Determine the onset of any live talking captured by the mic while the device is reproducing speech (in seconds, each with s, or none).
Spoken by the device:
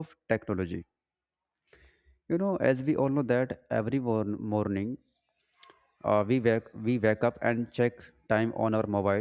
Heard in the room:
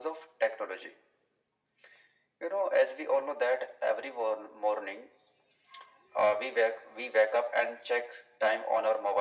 none